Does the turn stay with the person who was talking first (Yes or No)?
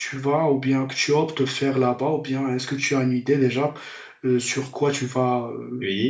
No